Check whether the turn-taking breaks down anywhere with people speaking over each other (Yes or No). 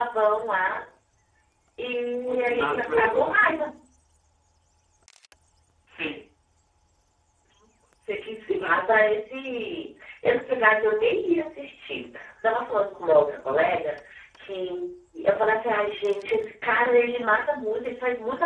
Yes